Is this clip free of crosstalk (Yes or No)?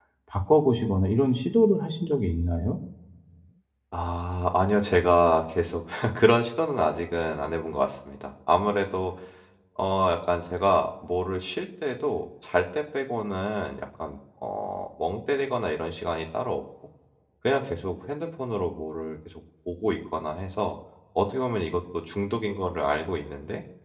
Yes